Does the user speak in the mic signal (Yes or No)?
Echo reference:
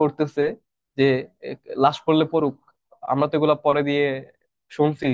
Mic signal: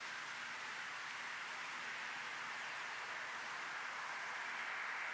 No